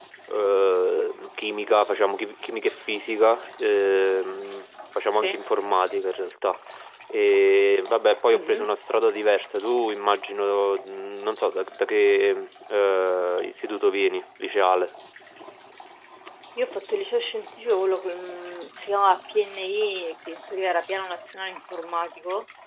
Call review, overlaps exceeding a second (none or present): none